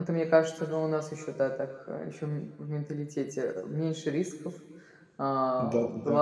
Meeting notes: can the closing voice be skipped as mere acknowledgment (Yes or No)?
Yes